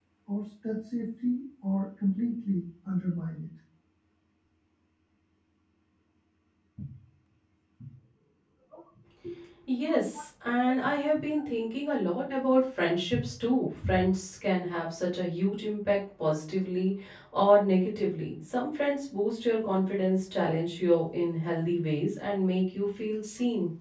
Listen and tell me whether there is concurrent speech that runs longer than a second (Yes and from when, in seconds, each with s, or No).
No